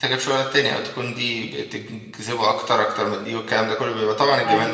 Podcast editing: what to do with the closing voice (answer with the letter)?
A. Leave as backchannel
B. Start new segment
A